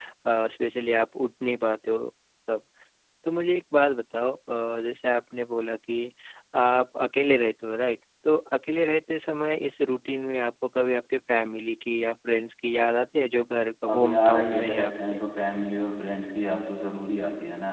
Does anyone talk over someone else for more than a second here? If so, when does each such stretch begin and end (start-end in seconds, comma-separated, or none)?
13.9-15.2